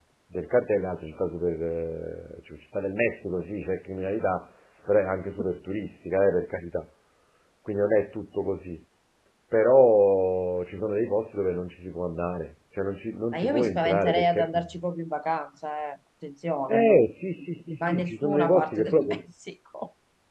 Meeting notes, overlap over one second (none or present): present